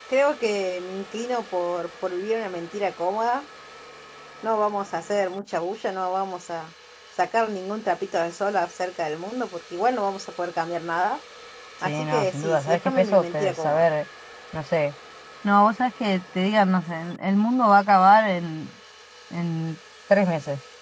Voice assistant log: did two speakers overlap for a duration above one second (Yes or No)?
Yes